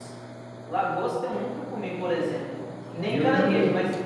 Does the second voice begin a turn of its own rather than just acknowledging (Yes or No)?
No